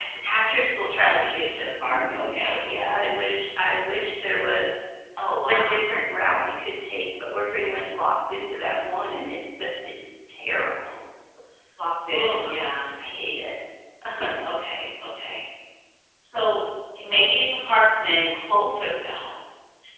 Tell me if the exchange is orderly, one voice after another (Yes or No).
No